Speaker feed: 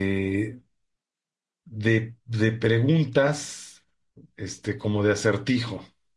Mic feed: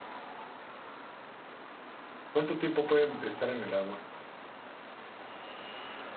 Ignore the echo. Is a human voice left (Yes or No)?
Yes